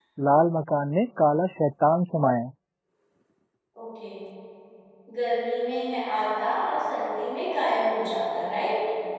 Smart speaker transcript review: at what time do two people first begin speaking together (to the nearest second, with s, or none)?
none